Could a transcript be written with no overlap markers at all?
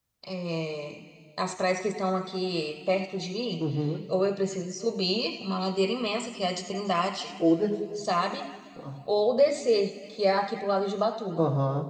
Yes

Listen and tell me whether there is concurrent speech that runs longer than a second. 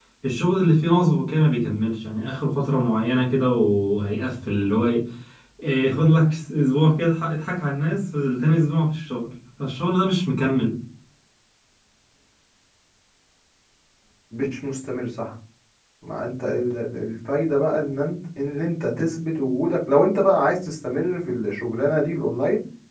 No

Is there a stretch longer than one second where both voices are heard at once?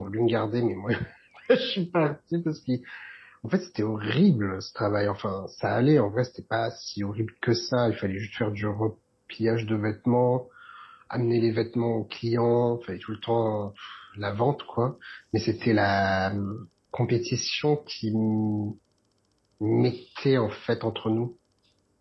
No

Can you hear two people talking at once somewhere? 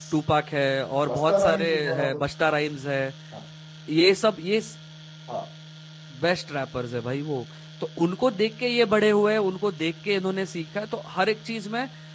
Yes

